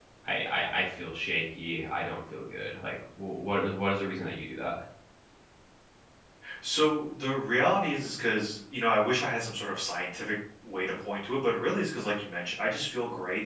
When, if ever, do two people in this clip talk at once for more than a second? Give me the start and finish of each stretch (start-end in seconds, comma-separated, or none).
none